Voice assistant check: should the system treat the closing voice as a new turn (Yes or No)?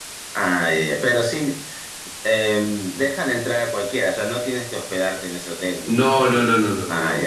Yes